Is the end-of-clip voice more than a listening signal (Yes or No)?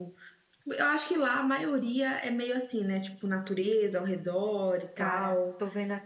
Yes